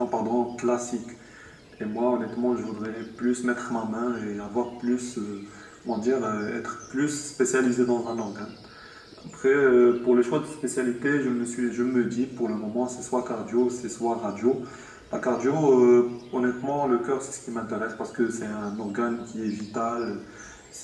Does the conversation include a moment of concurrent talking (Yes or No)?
No